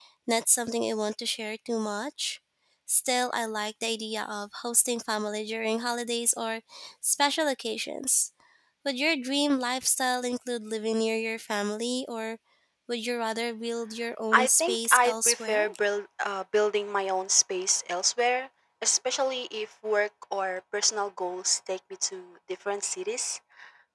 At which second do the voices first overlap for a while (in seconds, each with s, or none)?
14.3 s